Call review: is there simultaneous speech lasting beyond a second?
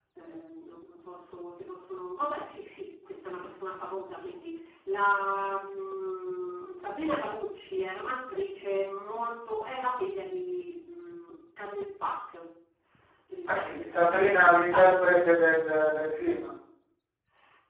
Yes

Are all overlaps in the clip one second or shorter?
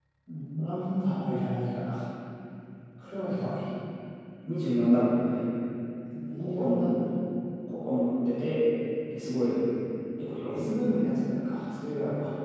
Yes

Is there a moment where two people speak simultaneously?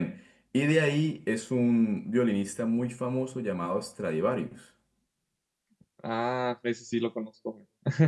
No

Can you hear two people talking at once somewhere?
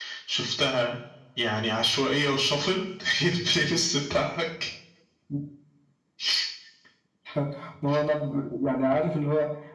No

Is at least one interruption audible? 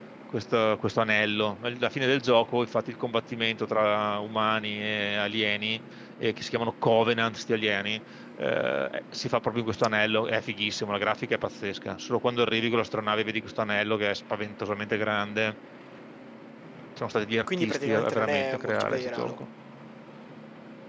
Yes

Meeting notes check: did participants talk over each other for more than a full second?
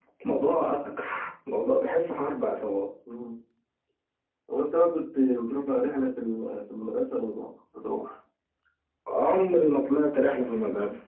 No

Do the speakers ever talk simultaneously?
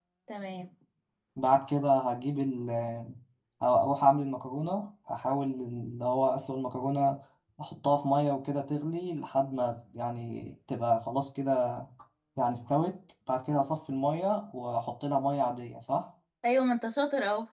No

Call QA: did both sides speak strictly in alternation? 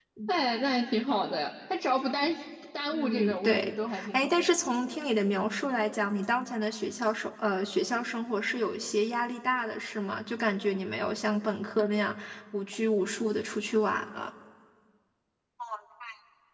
No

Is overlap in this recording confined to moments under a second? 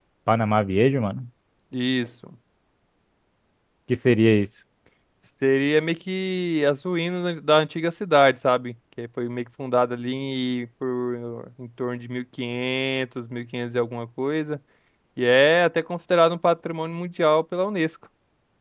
Yes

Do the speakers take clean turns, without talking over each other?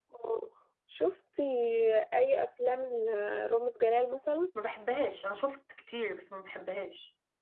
Yes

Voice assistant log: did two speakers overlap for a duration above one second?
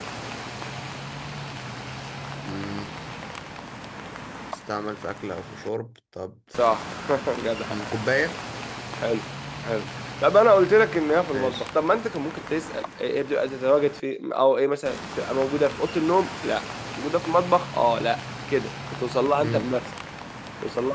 No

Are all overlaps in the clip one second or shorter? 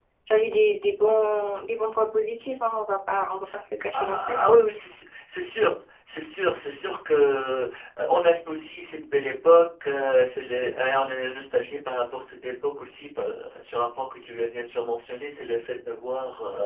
Yes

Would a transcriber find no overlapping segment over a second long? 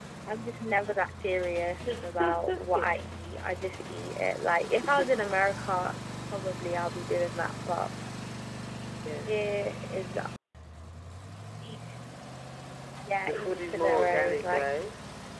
No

